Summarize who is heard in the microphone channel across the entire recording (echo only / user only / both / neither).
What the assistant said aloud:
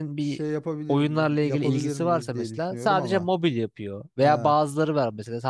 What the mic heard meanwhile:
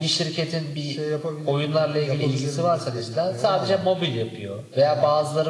echo only